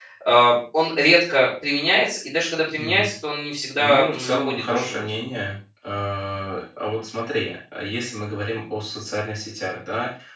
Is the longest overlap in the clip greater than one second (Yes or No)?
Yes